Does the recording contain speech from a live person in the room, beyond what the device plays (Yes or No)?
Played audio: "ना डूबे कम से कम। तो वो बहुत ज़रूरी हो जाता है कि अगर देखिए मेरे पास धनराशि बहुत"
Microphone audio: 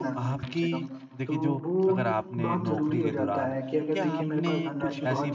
Yes